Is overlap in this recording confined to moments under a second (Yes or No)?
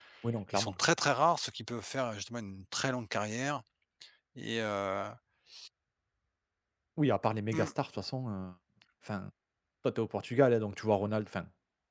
Yes